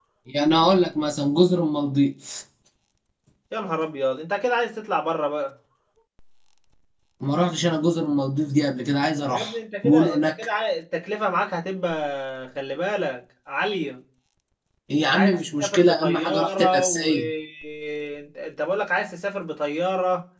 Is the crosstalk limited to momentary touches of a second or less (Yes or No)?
No